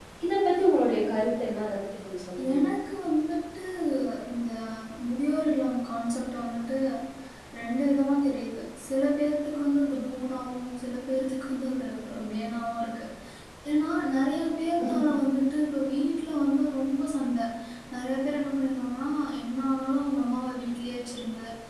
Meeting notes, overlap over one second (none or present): none